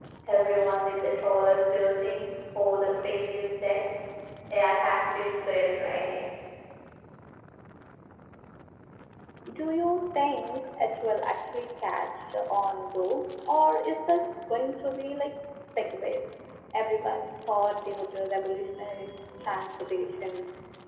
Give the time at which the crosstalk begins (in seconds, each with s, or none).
none